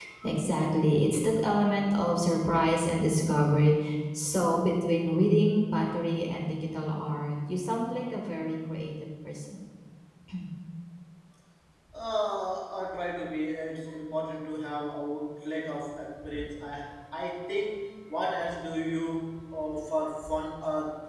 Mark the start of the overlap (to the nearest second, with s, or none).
none